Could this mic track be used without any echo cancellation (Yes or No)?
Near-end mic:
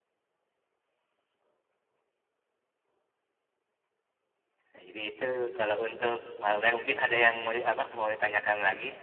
Yes